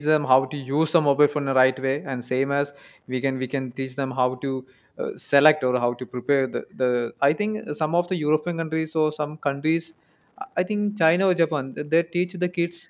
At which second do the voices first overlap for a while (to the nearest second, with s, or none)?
none